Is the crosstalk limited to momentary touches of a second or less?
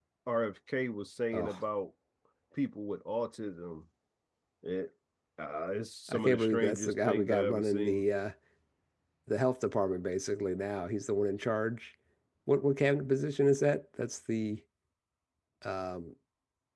No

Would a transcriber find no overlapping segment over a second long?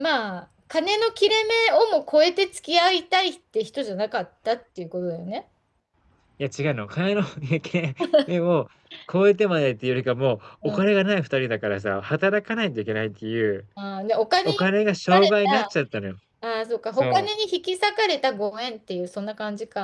Yes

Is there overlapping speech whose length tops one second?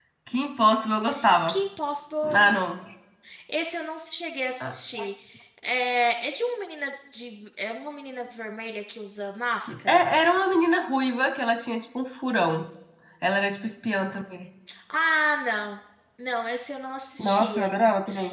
No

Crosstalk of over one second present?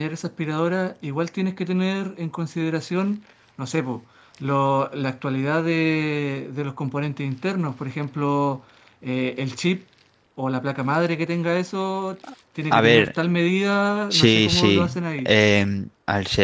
Yes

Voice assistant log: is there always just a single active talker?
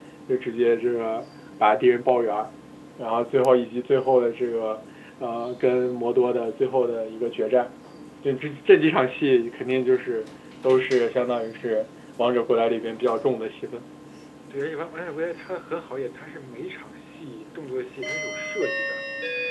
Yes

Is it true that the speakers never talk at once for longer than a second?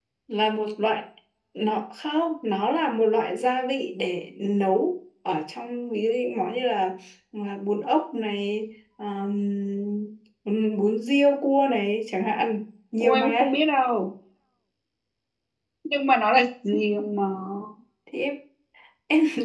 Yes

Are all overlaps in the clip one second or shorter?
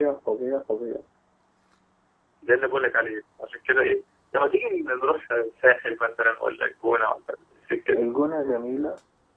Yes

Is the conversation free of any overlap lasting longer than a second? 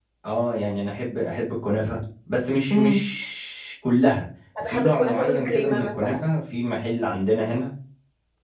No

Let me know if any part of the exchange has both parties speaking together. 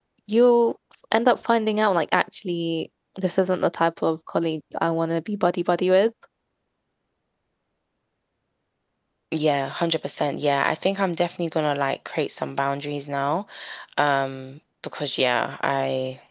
No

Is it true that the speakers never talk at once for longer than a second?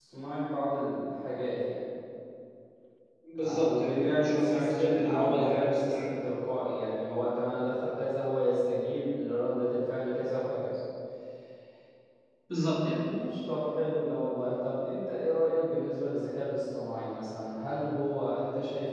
No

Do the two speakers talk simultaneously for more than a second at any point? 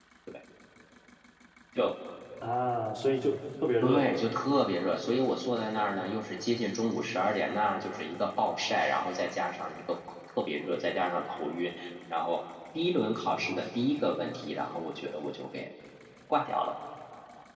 No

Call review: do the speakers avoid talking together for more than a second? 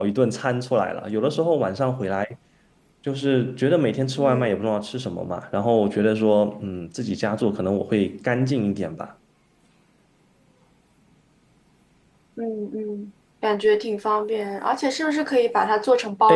Yes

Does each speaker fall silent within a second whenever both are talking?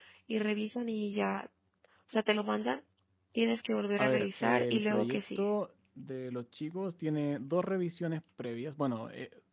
No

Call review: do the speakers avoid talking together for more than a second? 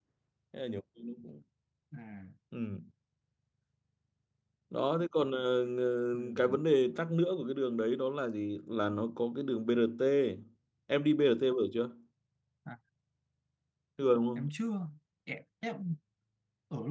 Yes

